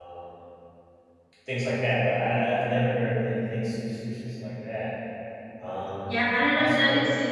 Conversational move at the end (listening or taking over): taking over